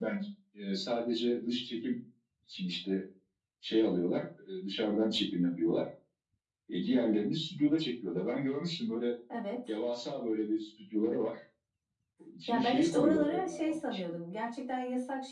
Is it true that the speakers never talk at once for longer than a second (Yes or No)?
No